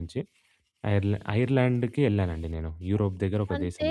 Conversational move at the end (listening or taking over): taking over